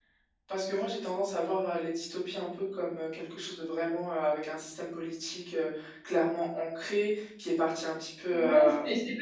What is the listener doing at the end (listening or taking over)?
taking over